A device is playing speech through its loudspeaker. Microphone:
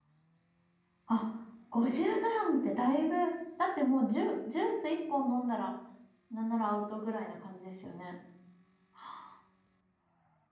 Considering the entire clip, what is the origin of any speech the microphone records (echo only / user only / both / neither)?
user only